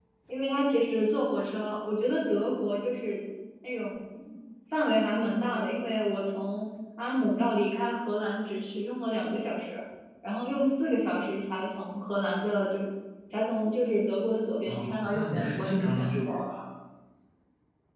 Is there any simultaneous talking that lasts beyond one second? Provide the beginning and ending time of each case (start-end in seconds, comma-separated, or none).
14.6-16.1